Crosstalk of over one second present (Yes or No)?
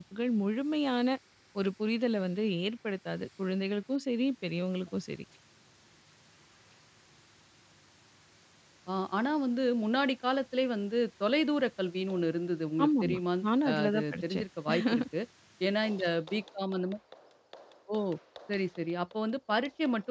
Yes